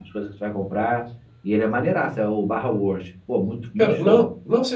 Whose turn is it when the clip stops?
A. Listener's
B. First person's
A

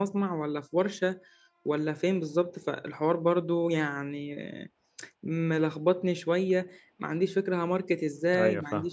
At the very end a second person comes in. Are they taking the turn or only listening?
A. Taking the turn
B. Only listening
B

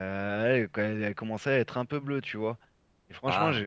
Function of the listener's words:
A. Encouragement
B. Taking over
A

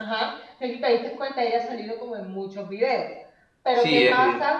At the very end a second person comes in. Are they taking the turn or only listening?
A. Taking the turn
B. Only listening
B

